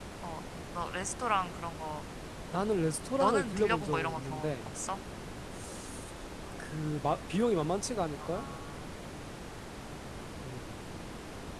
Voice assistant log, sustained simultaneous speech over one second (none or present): present